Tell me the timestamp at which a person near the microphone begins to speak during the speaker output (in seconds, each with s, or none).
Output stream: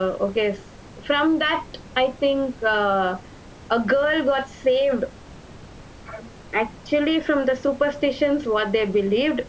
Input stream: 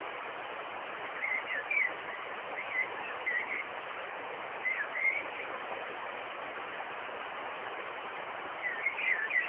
none